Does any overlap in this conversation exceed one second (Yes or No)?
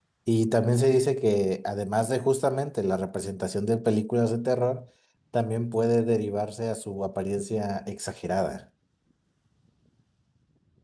No